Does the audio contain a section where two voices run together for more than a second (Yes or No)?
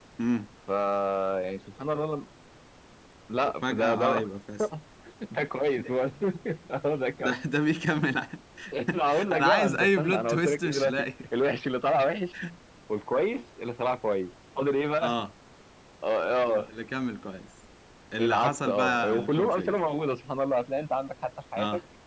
Yes